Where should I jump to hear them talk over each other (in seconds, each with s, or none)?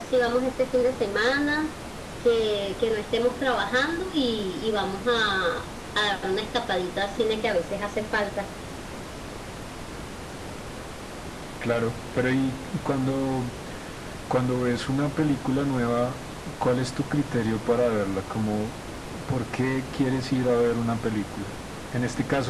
none